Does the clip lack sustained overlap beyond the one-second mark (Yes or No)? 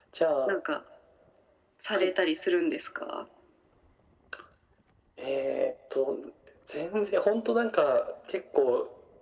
Yes